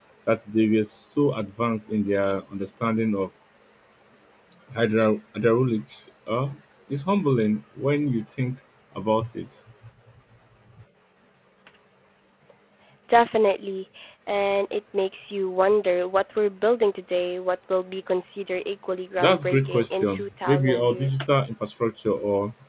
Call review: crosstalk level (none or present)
present